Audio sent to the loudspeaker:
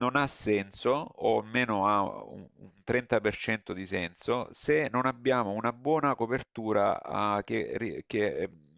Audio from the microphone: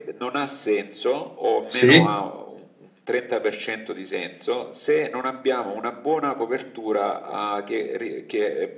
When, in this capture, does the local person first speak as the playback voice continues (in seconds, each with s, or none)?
1.7 s